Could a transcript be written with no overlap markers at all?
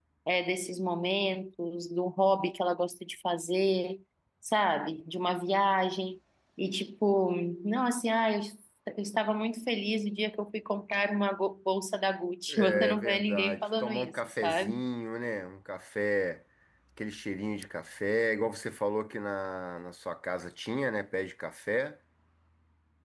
No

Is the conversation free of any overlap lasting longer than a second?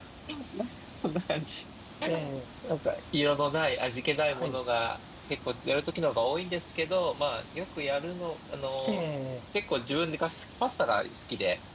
Yes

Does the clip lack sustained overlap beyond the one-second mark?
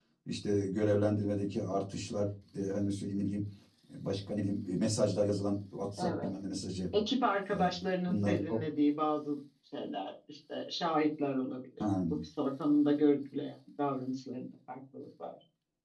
Yes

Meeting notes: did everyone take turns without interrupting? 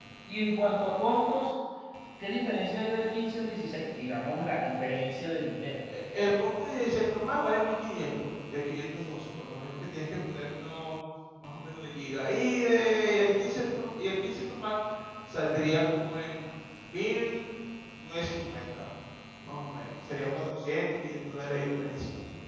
Yes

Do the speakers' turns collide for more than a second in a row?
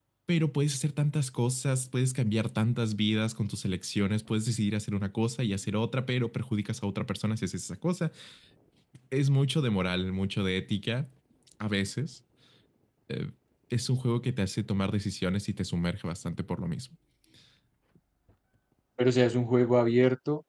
No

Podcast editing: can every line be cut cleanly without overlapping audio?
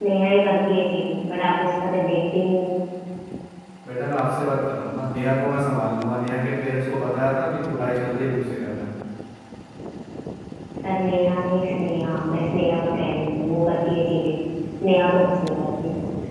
Yes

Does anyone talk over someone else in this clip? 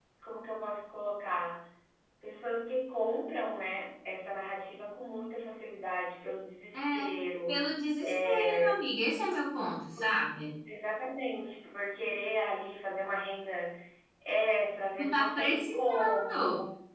Yes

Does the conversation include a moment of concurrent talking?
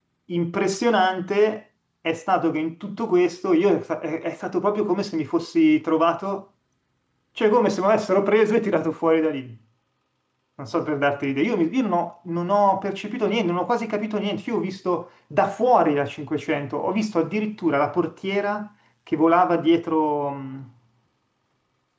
No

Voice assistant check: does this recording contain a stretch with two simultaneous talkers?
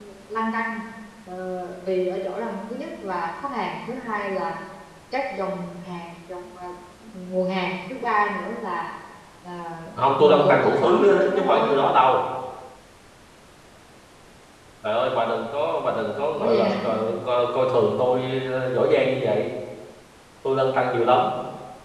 Yes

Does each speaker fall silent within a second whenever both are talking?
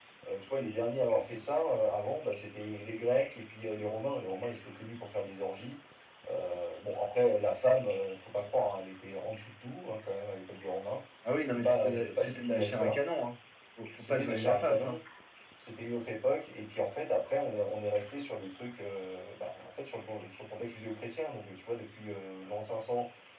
No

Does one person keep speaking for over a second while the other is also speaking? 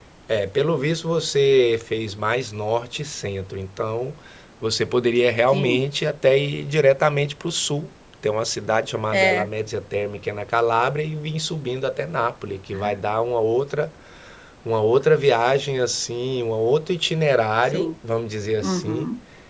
No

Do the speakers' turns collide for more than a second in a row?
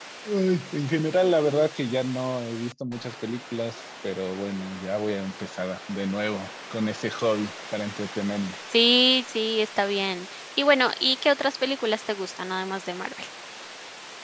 No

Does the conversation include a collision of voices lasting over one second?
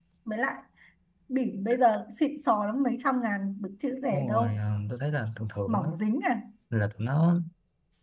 No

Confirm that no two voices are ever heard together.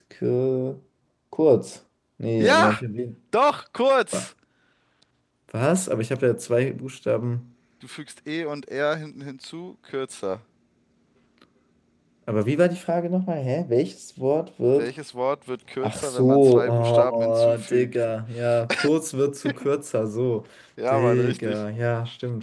No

